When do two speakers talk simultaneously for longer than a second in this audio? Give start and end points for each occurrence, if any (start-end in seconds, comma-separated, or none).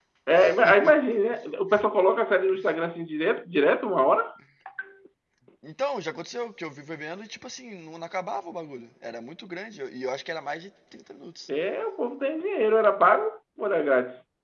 none